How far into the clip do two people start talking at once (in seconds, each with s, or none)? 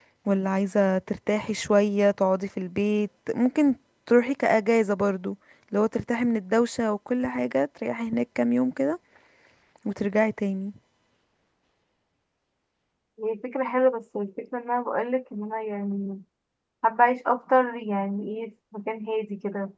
none